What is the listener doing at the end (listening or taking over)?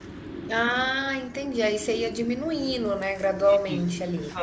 taking over